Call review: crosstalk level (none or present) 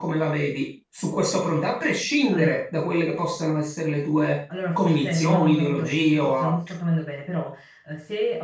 present